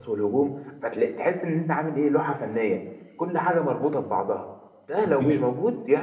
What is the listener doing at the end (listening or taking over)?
listening